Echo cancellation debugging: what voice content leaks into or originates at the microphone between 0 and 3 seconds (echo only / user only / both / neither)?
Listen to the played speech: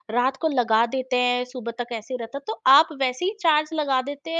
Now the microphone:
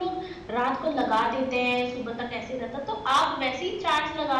echo only